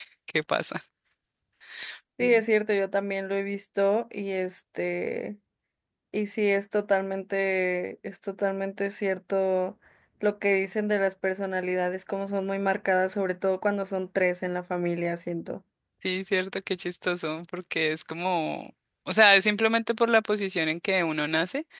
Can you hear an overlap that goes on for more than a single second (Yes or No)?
No